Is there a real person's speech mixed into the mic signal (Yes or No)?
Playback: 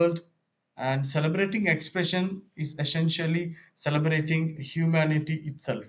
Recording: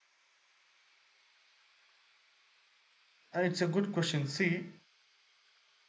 Yes